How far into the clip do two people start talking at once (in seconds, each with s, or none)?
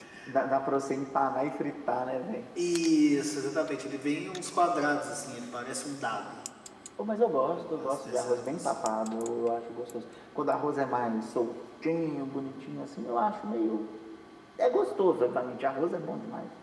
7.5 s